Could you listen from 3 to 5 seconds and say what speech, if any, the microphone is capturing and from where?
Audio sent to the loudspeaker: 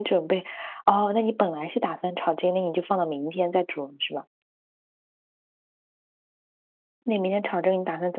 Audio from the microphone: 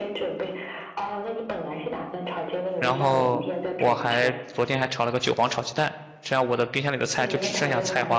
both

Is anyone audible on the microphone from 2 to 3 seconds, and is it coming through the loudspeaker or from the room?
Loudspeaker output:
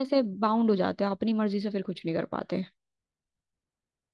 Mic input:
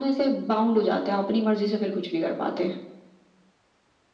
echo only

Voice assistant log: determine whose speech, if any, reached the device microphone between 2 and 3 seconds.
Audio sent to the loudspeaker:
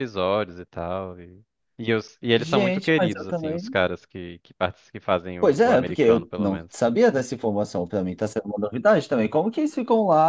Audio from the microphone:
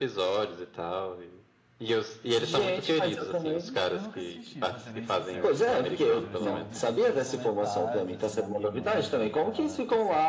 echo only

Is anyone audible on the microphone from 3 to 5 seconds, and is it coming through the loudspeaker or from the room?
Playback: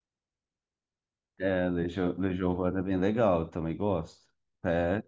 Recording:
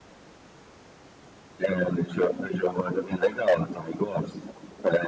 echo only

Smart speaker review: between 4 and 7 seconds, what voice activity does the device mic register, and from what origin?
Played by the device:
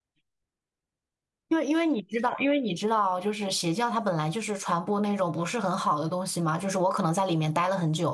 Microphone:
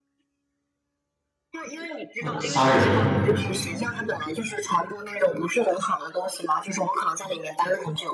echo only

